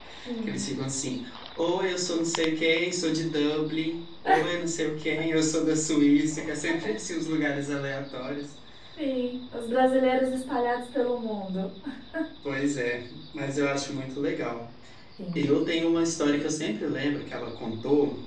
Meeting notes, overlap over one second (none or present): none